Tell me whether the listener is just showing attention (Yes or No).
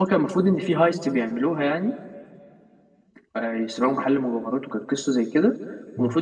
Yes